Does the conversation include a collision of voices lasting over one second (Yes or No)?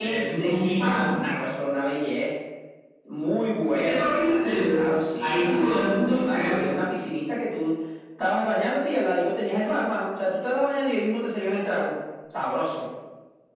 Yes